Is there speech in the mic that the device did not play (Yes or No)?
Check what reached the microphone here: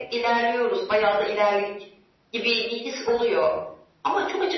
No